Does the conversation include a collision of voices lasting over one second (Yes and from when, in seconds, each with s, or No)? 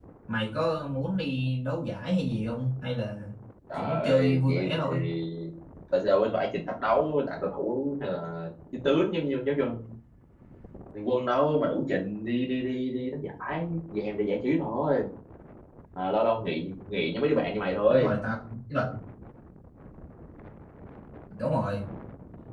Yes, from 3.8 s